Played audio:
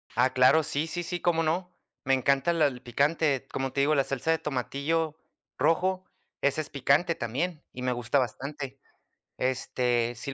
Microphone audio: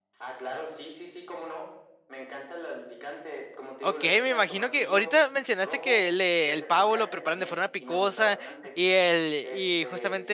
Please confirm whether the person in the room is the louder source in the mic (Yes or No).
Yes